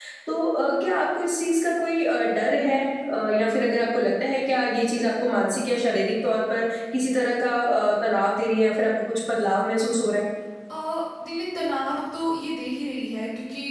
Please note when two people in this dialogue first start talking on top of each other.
none

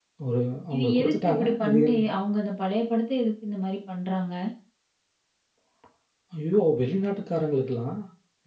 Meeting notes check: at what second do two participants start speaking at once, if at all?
0.7 s

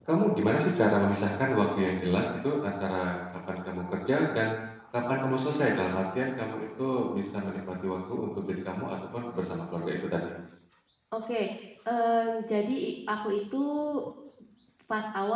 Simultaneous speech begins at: none

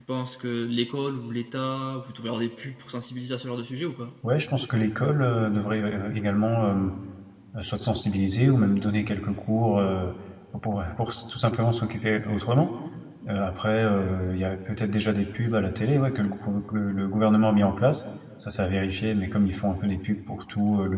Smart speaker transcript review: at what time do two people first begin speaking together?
none

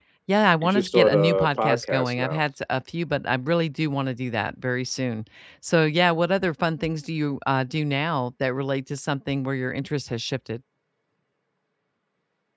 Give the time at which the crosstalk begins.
0.6 s

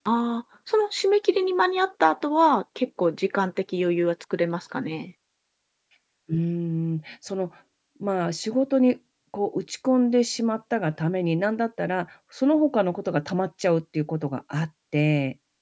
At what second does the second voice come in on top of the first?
none

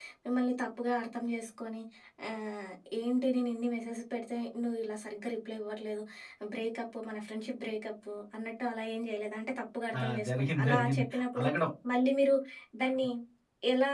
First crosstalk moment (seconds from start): 9.9 s

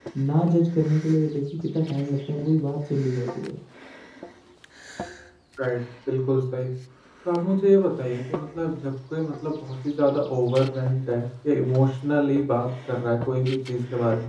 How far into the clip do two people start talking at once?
none

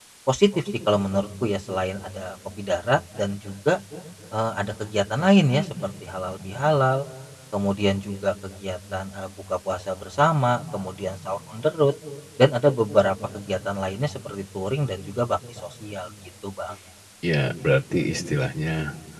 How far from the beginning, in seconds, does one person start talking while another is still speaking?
none

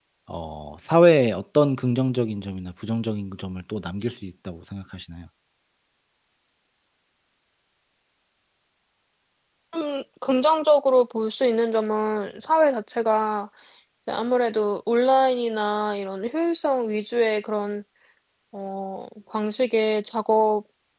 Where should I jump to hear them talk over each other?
none

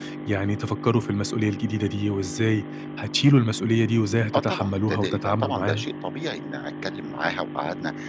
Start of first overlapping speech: 4.3 s

